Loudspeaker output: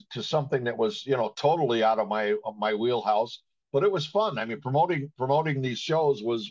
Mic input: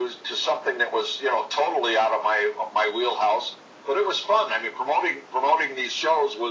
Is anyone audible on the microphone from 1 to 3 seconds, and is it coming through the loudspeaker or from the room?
echo only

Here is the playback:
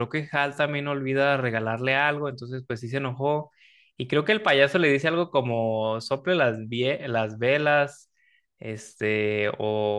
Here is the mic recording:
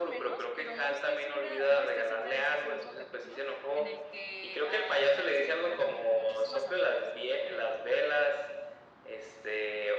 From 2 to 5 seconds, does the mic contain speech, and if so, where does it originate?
both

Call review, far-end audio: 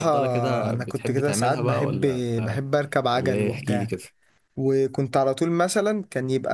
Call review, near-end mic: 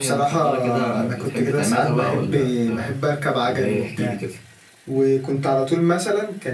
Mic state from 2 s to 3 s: echo only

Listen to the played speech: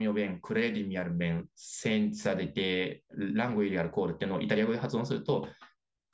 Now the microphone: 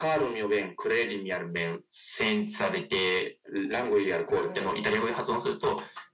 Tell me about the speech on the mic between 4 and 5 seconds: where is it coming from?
both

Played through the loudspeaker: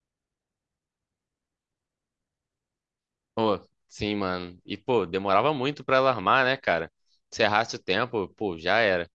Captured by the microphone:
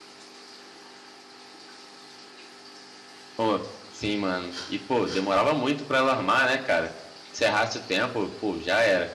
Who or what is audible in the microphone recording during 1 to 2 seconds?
neither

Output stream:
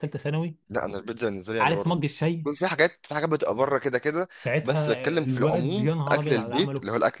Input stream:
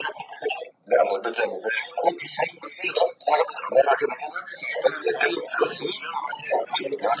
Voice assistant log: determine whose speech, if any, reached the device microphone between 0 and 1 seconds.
echo only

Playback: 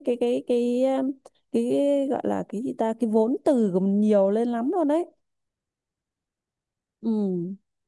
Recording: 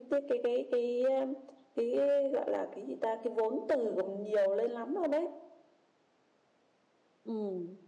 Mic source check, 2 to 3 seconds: echo only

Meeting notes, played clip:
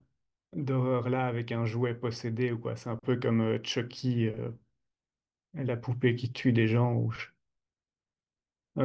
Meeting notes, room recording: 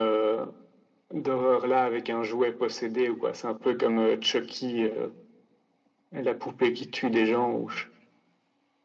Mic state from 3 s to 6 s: echo only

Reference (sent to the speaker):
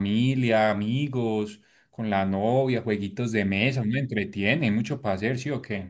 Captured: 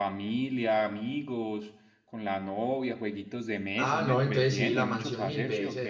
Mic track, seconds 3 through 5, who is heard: both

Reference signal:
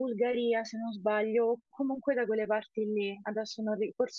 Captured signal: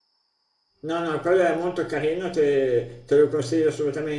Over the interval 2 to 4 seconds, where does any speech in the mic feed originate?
user only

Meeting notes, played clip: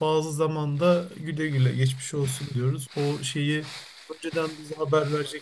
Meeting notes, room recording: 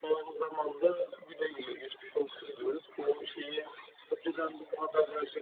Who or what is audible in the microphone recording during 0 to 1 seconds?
echo only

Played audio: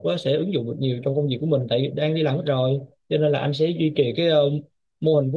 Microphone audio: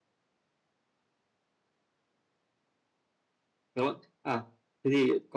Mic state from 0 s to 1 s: neither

